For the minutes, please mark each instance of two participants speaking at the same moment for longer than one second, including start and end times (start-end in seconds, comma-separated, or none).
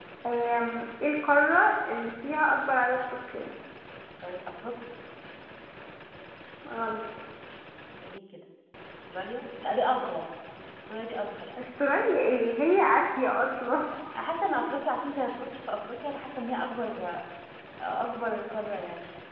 none